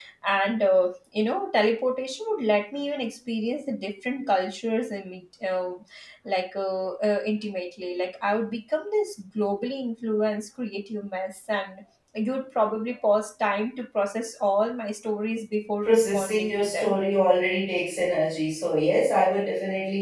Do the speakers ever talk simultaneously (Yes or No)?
Yes